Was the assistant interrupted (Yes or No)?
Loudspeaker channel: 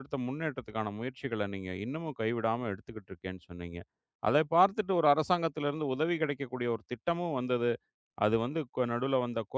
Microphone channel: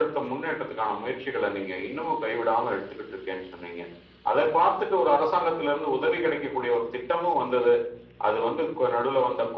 No